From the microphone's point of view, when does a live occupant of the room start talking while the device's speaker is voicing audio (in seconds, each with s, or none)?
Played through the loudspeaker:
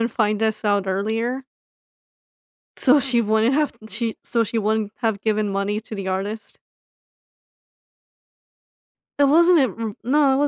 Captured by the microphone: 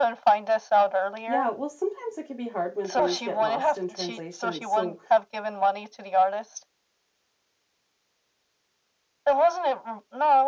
1.2 s